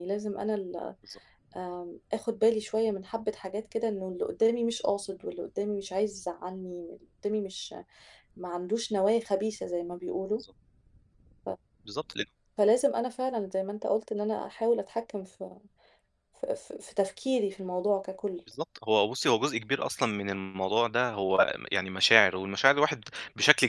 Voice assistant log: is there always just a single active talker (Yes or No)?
Yes